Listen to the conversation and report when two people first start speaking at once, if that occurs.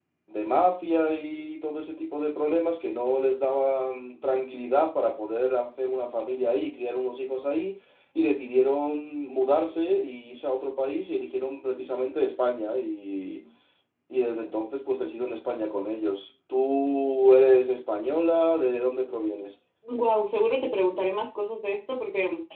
none

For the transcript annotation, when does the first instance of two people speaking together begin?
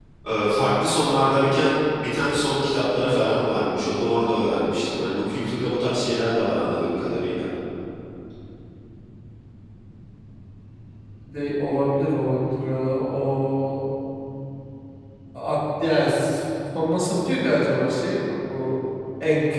none

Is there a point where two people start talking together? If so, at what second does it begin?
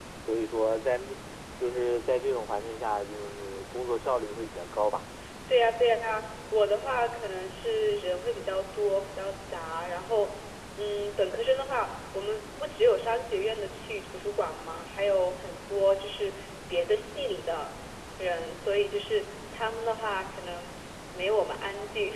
none

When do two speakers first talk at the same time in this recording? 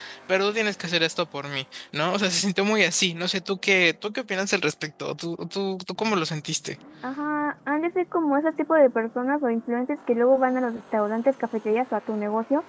none

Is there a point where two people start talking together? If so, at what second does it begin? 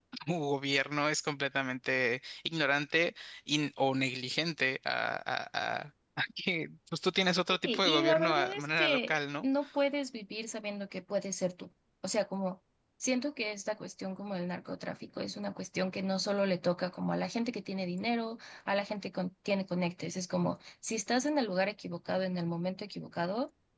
7.5 s

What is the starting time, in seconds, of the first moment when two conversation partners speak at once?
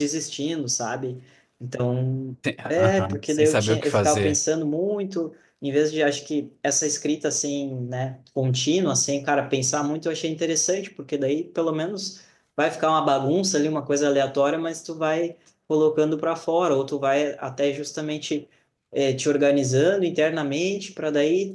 2.7 s

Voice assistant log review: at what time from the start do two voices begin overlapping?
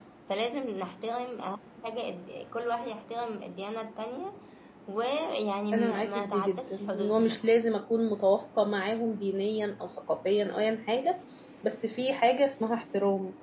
5.7 s

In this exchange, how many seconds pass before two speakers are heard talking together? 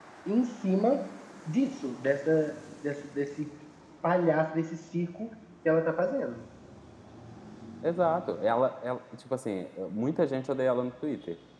none

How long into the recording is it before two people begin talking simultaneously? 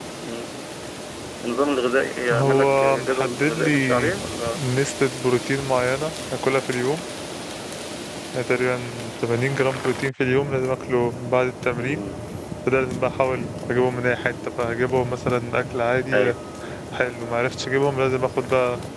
2.3 s

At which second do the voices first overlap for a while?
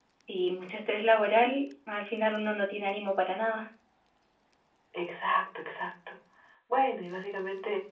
none

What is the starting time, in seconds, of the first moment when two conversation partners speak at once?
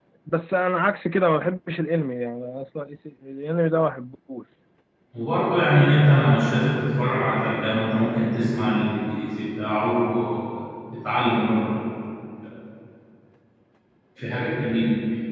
none

